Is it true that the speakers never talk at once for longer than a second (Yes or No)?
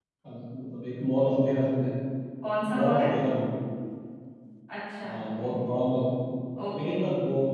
Yes